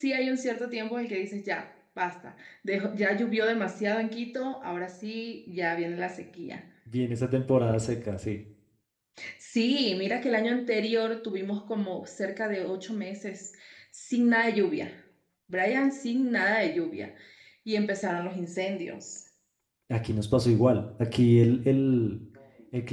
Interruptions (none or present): none